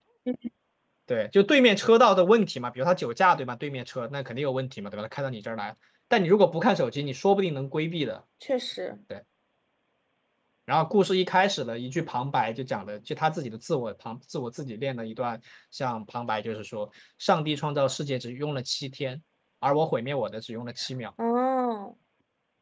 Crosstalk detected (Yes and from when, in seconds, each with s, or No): No